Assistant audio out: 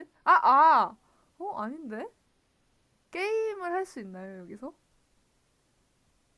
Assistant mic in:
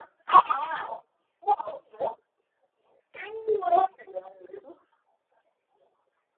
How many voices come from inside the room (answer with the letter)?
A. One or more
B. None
B